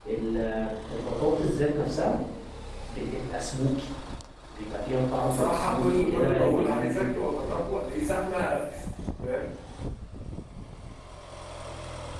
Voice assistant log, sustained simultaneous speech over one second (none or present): present